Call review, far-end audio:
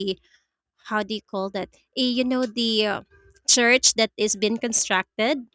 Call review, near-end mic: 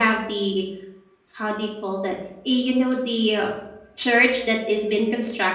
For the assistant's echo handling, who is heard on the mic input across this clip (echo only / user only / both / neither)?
echo only